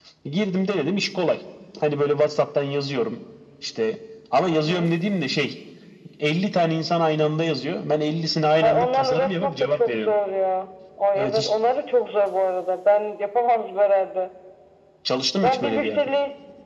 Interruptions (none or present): present